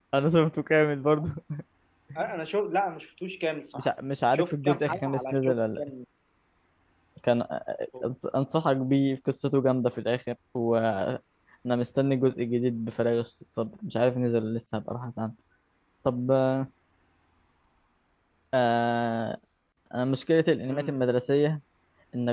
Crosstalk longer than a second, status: present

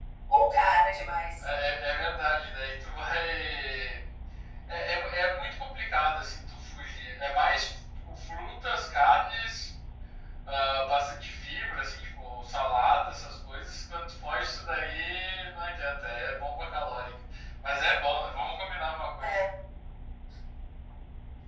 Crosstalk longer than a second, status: none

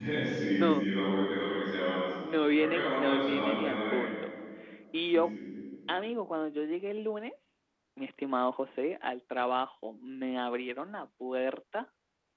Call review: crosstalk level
present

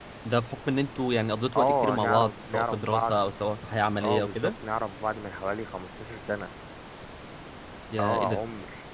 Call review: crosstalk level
present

